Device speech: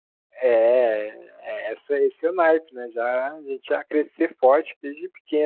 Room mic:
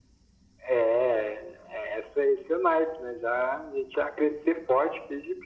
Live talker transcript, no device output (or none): none